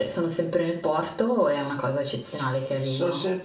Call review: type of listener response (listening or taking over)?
taking over